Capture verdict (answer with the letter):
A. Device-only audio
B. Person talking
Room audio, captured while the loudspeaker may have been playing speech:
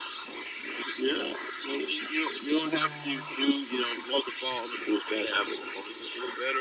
B